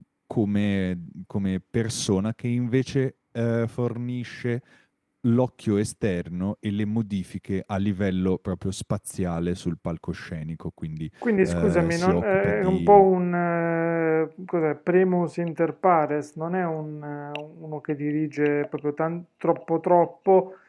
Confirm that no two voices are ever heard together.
No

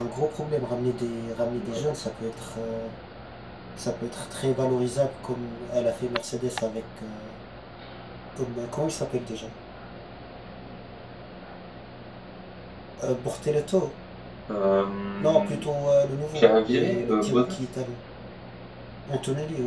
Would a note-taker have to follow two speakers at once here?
Yes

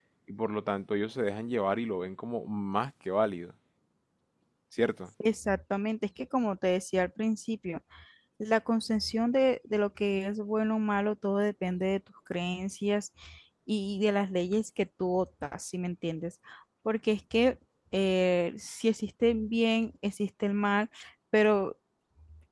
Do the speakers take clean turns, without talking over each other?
Yes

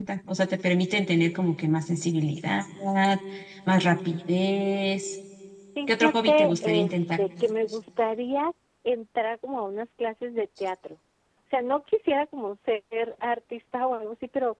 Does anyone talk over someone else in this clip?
Yes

